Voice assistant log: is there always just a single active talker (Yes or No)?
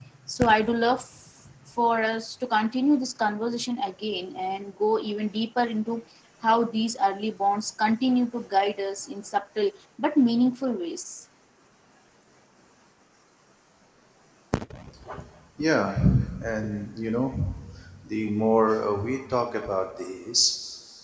Yes